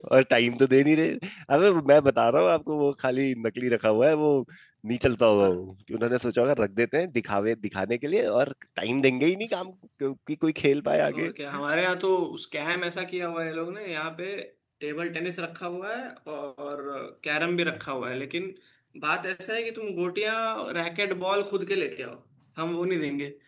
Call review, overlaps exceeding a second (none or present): none